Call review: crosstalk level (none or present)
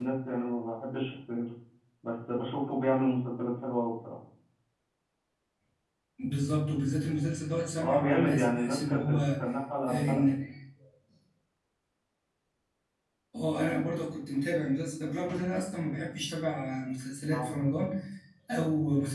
present